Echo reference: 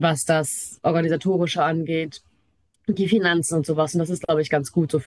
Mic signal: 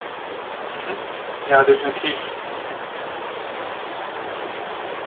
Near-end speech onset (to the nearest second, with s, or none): 1 s